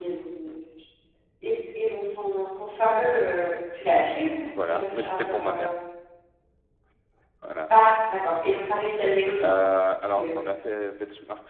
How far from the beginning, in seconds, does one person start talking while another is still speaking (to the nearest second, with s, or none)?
4 s